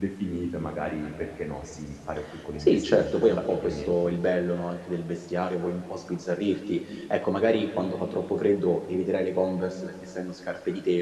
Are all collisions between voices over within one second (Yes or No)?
No